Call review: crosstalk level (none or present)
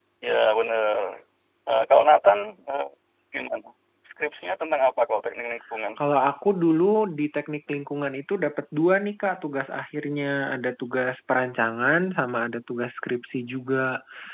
none